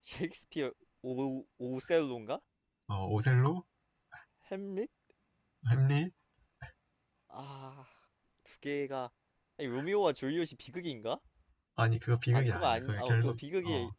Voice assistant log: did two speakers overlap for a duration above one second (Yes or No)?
Yes